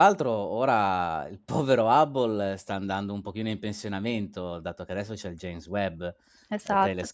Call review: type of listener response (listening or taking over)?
listening